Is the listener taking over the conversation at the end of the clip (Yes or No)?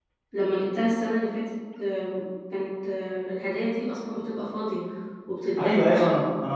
Yes